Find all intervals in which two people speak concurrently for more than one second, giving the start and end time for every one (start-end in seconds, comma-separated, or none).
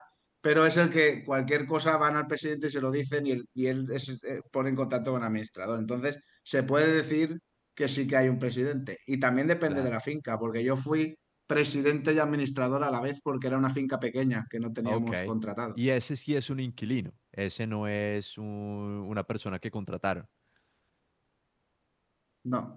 none